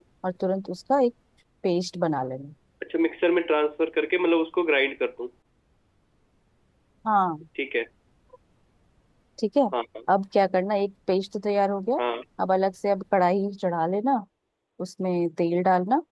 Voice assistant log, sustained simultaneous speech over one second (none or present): none